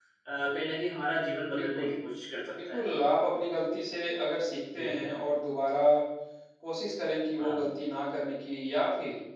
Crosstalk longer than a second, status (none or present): none